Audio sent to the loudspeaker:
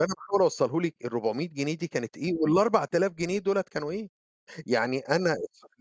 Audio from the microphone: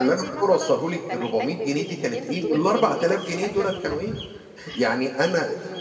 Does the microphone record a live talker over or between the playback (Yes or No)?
Yes